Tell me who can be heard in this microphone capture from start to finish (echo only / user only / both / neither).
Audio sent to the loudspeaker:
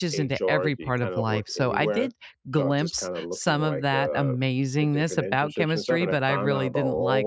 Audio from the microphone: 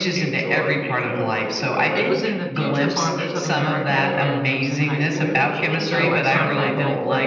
both